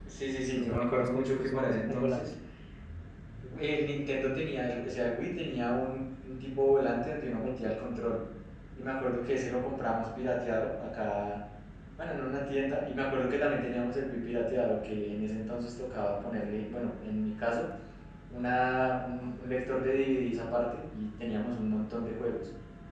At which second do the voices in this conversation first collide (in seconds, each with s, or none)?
0.6 s